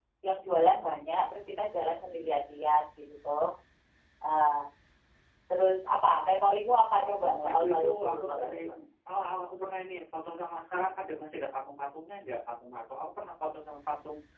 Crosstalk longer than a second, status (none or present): present